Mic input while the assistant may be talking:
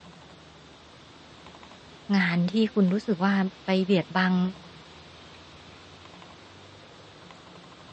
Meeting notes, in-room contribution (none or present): present